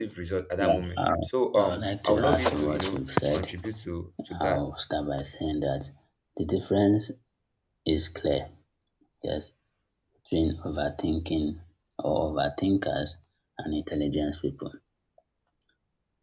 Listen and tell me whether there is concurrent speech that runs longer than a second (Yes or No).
Yes